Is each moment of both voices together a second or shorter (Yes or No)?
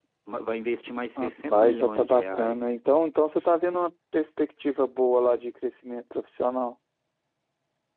No